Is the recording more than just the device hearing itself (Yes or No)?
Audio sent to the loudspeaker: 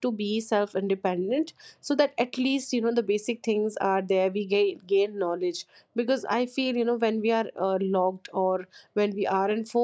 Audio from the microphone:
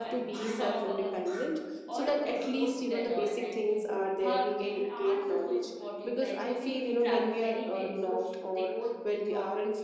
Yes